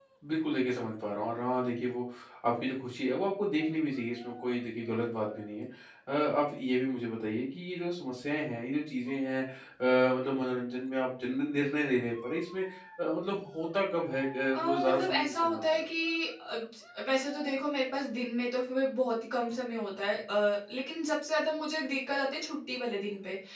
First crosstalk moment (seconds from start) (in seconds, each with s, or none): 14.5 s